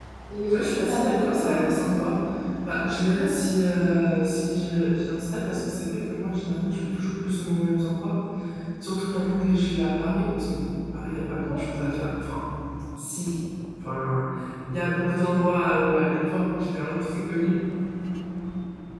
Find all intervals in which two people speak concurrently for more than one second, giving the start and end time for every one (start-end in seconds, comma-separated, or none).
0.5-1.9